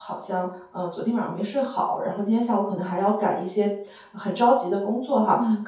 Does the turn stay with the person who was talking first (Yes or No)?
Yes